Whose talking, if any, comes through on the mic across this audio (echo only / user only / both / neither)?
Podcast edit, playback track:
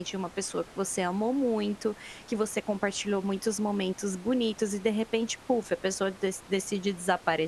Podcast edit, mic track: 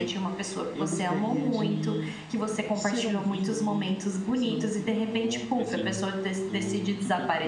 both